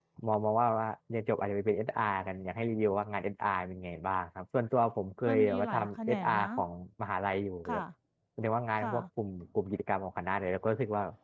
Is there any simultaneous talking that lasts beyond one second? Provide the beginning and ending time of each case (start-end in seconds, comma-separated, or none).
5.3-6.5